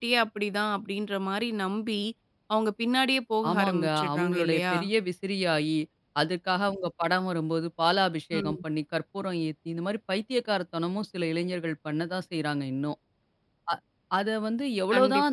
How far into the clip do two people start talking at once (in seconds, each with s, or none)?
3.5 s